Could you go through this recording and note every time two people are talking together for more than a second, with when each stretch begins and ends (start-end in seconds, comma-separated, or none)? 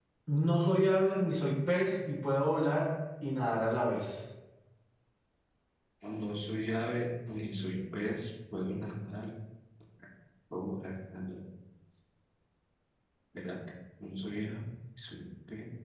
none